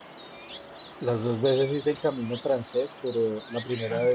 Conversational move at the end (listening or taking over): listening